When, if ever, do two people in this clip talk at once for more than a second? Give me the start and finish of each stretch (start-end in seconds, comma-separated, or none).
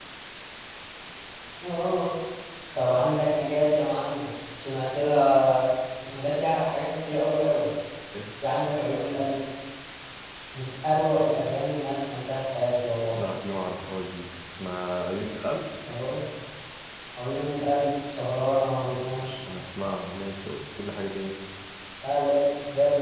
none